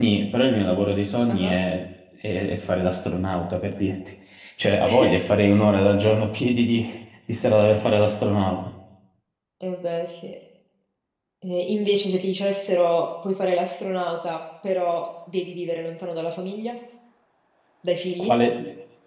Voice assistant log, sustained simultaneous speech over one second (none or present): none